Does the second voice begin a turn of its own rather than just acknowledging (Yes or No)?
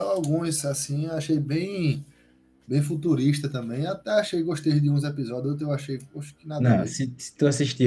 Yes